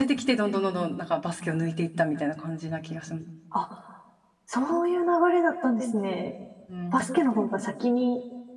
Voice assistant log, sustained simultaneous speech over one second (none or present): none